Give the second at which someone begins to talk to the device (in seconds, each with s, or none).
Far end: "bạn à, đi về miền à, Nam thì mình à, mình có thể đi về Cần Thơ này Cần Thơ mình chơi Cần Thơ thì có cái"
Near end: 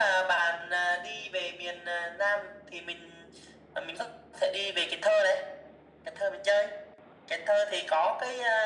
none